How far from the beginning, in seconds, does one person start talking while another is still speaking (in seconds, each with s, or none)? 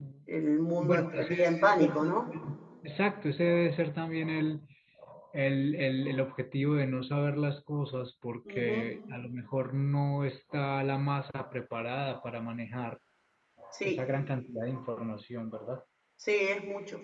0.8 s